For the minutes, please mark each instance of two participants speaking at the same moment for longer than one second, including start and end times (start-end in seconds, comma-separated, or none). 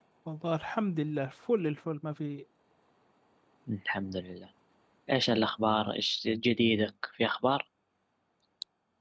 none